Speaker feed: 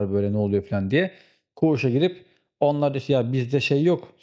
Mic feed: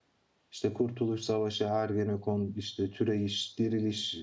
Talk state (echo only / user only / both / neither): user only